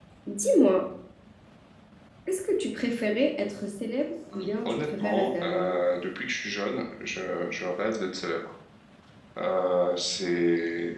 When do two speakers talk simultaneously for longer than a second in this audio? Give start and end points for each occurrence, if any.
4.3-5.8

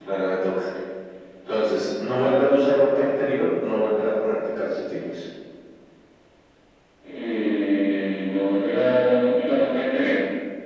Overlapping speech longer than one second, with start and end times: none

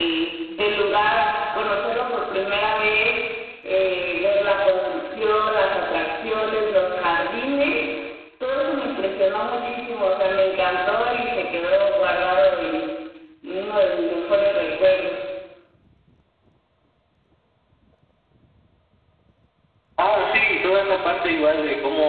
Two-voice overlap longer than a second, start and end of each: none

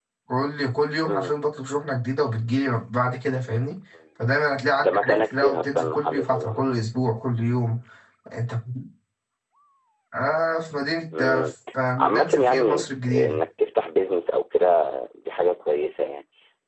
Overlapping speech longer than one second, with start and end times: 4.8-6.7, 12.0-13.4

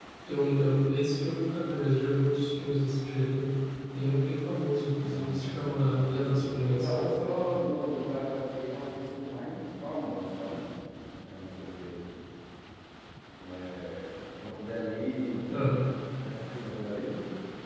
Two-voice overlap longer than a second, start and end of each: 5.0-6.9

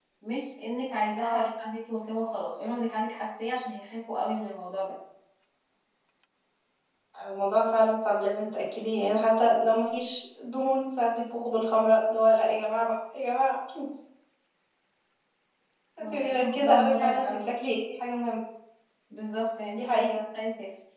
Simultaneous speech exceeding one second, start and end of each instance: 16.0-17.5

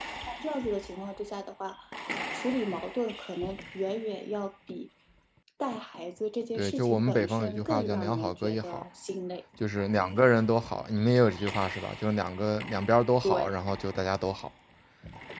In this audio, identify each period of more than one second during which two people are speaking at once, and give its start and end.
6.6-8.8

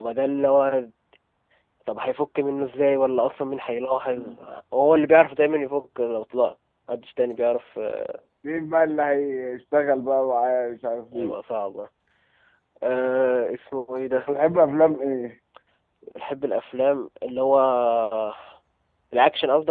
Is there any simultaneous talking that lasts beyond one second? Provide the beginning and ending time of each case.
none

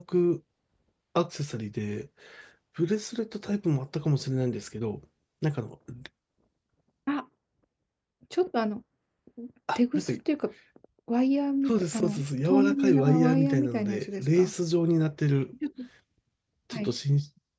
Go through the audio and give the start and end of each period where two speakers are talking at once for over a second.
11.7-14.5

